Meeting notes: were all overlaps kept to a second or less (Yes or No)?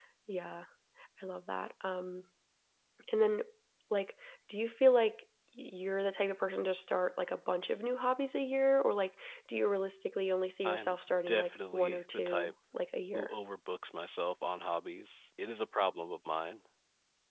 No